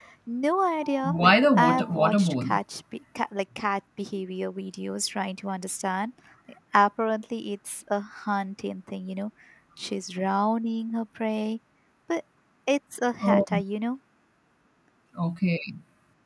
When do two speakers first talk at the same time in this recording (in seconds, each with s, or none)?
1.2 s